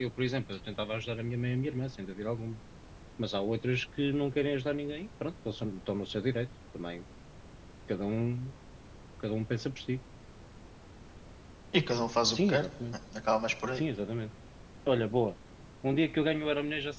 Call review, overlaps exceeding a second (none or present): none